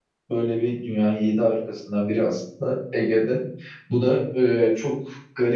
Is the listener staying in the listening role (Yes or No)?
Yes